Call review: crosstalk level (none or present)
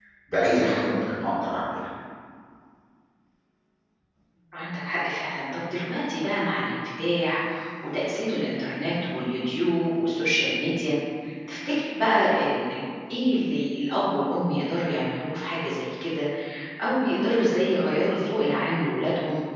none